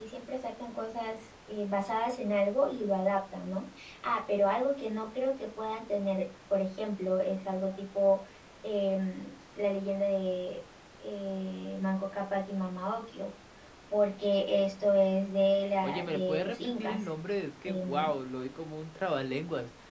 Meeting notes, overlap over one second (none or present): present